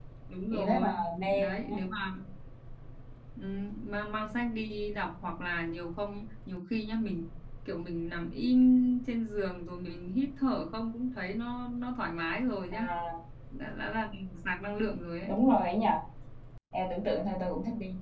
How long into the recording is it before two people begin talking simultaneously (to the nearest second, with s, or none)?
1 s